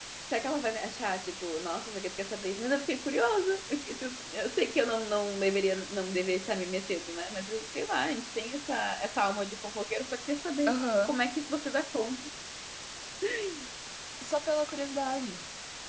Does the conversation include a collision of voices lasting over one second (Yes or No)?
No